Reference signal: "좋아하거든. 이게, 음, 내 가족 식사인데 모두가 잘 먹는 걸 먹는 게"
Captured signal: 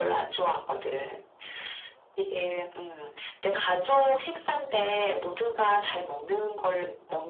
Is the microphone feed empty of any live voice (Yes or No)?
Yes